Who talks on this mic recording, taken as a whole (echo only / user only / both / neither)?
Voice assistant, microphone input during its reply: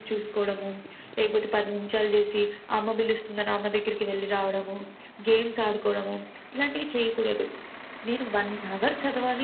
echo only